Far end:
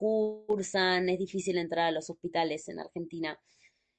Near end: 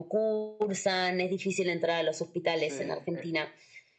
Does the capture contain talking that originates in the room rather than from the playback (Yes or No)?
Yes